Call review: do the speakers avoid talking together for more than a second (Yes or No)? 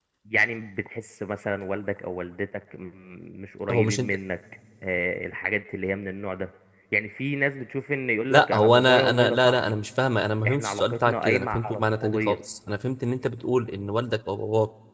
No